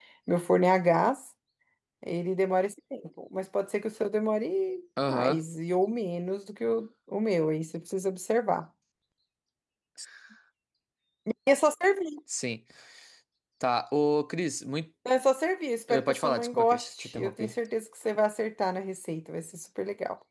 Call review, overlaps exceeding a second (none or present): present